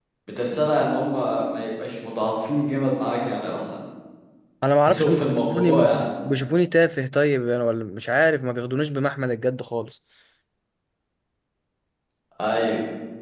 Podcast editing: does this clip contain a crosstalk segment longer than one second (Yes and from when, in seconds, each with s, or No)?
Yes, from 4.9 s